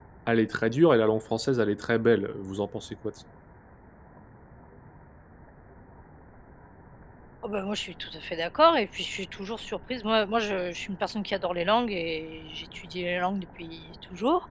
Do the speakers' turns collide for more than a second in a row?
No

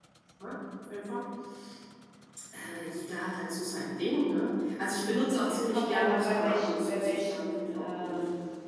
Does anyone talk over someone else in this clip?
Yes, from 5.7 s

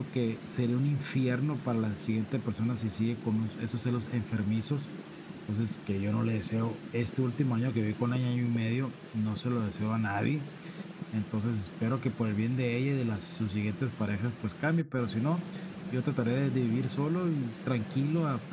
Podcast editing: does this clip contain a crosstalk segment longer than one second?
No

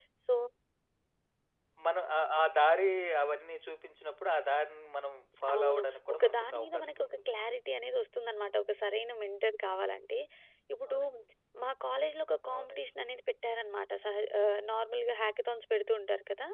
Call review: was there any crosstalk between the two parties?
Yes, from 5.5 s

